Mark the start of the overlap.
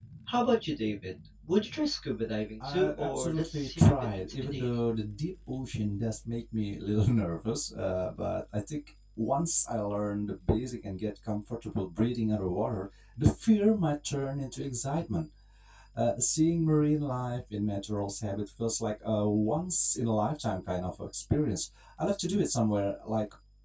2.6 s

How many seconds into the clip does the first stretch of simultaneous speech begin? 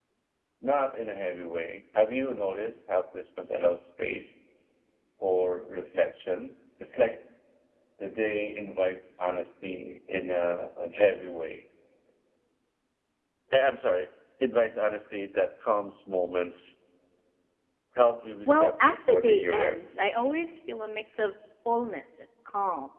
18.4 s

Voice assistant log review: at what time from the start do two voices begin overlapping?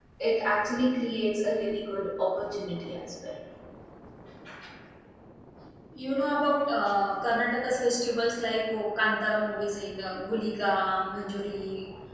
none

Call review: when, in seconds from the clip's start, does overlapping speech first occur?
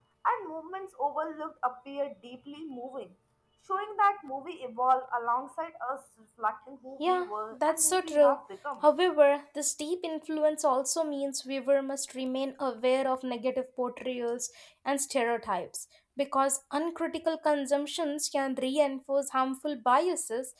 7.0 s

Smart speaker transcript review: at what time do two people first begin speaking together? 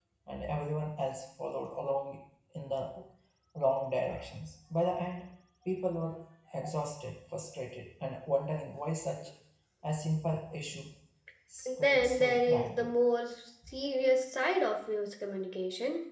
11.7 s

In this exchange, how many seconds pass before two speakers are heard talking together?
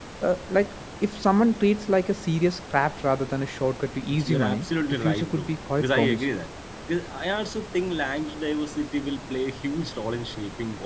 4.1 s

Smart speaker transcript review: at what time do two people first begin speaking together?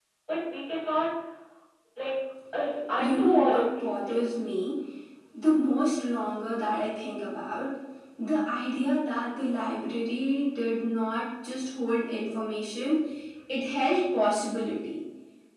3.0 s

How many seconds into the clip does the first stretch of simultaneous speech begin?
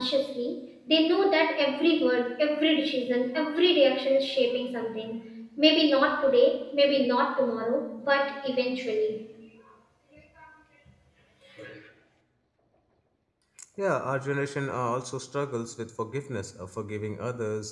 none

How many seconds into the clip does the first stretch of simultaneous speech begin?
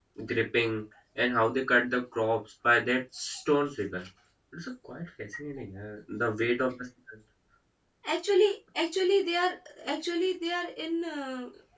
none

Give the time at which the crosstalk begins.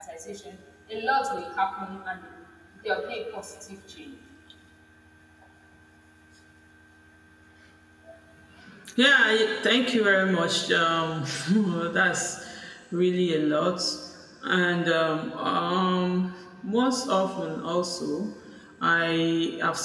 none

